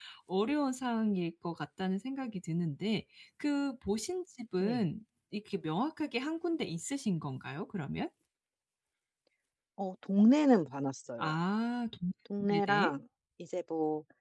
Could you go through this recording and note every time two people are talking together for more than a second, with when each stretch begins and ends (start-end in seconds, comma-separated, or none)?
none